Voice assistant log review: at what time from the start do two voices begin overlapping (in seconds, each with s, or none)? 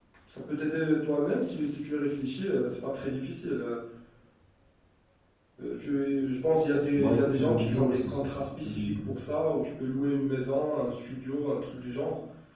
7.0 s